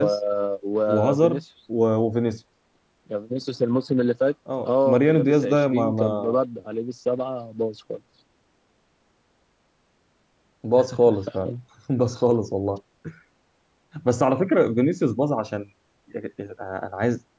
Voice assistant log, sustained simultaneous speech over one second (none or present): present